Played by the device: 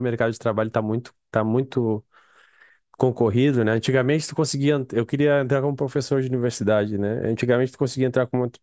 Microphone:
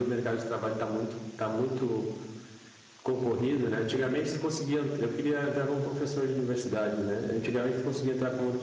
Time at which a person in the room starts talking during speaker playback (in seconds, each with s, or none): none